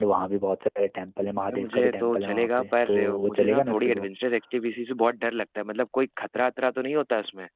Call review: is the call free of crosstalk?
No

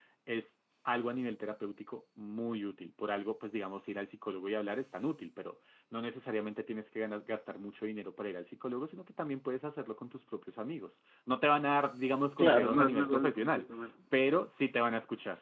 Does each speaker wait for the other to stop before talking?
No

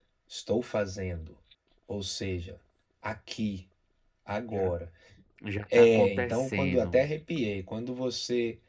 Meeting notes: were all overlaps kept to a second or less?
No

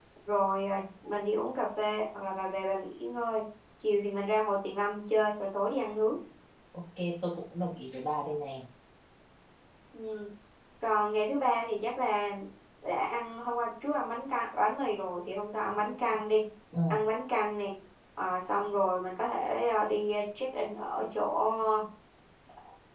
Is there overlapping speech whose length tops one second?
No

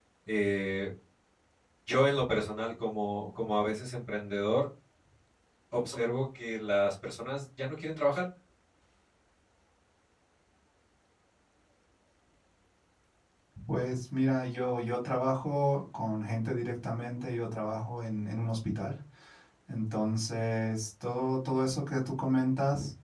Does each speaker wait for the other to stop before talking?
Yes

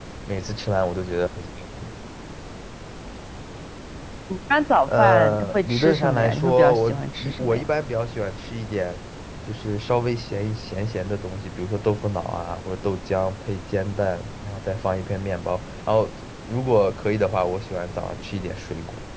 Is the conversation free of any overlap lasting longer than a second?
No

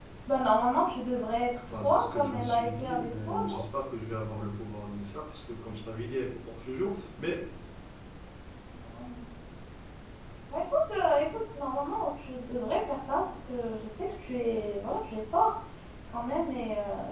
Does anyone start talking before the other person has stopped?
Yes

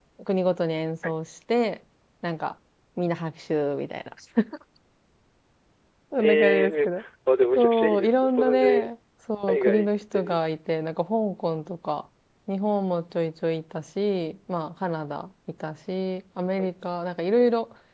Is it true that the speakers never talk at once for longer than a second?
No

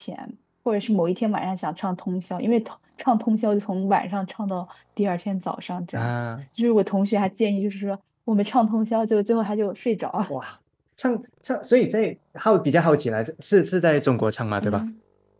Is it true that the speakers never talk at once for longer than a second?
Yes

